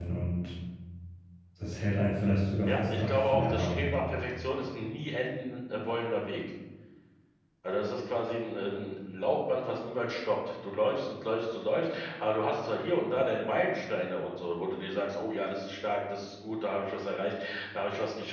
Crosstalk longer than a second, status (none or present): present